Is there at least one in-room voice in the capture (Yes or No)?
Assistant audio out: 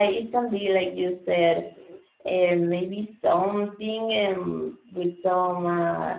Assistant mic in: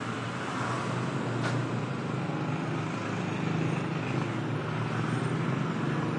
No